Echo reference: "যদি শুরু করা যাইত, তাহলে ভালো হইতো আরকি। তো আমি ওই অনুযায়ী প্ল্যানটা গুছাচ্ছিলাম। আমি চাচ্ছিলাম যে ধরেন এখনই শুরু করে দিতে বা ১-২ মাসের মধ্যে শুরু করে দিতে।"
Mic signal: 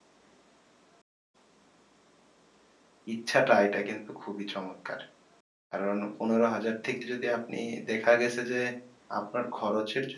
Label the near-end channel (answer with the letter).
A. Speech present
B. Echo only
A